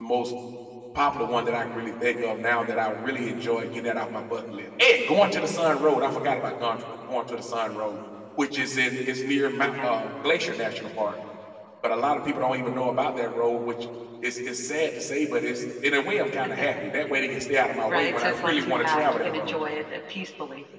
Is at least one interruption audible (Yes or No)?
Yes